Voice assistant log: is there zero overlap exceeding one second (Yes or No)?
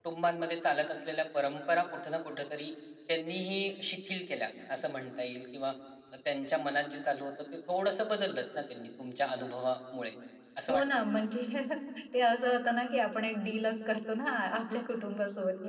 Yes